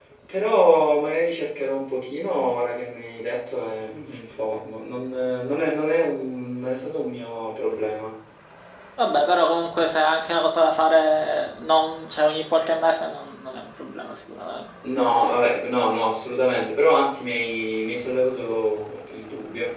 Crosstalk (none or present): none